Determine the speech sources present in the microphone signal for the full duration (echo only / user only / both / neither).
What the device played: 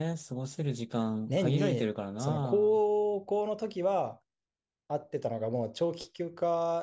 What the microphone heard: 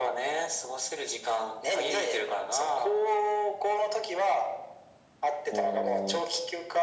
both